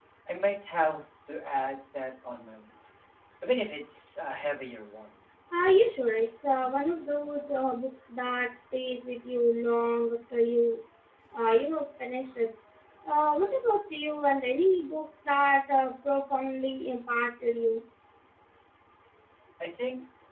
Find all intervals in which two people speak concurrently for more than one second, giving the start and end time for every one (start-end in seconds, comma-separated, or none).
none